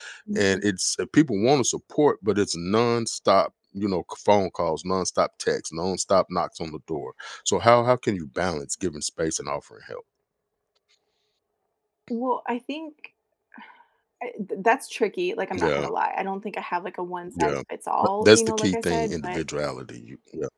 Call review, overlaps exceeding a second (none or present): present